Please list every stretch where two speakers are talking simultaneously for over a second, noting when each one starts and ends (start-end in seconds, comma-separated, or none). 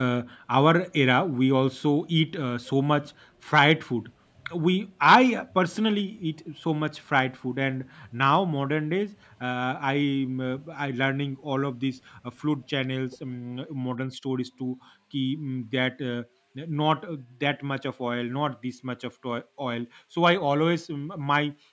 none